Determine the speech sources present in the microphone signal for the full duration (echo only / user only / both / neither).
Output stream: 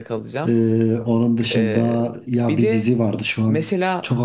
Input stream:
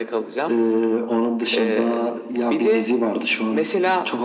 echo only